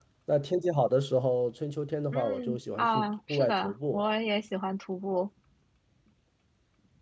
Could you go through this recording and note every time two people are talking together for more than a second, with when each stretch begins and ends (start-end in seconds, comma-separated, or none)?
2.1-4.0